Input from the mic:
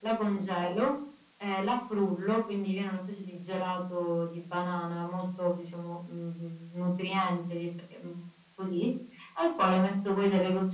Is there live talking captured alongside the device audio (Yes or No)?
No